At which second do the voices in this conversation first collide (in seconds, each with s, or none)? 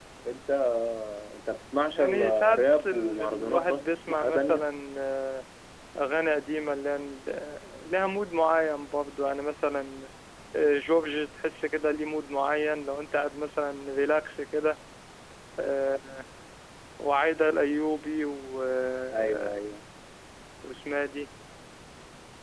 1.9 s